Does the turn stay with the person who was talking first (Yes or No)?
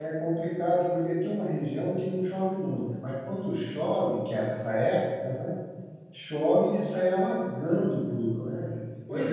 No